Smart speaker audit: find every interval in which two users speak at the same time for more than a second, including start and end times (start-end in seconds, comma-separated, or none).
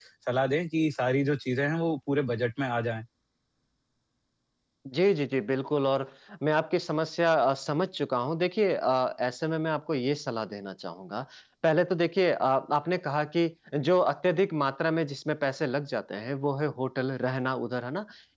none